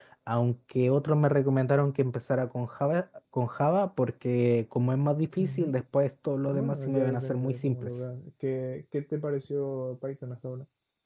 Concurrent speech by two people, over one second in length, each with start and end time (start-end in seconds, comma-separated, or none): 6.5-7.9